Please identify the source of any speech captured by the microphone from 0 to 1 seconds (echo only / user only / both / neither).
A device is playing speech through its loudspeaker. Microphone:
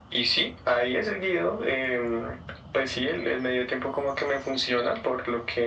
echo only